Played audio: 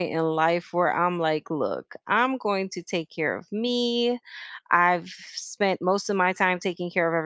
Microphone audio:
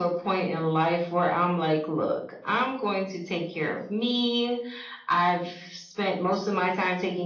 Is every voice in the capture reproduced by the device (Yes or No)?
Yes